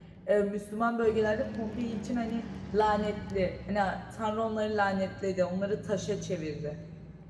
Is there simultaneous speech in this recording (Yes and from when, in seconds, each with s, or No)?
No